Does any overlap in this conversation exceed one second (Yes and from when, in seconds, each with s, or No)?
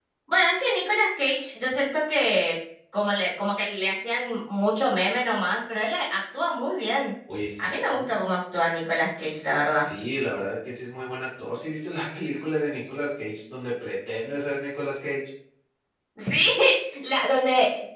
No